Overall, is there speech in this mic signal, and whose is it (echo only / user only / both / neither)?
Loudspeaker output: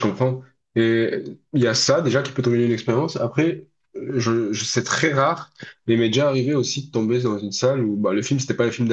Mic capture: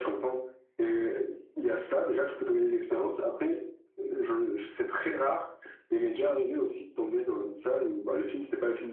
echo only